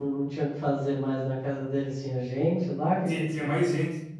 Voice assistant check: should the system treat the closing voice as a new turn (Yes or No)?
Yes